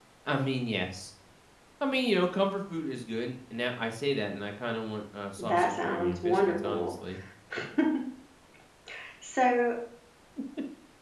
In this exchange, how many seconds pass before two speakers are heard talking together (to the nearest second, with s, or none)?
5 s